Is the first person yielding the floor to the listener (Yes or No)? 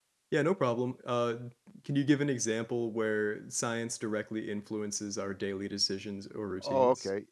Yes